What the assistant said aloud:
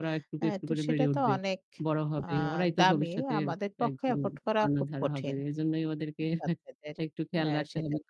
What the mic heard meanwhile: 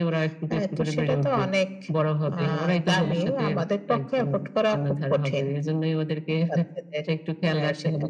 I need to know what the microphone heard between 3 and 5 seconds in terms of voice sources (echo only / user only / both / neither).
both